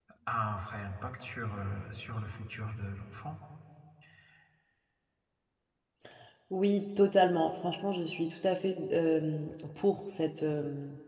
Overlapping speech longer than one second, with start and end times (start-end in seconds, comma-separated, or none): none